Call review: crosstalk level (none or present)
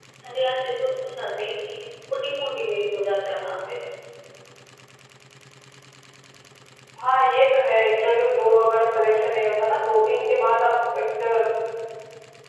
none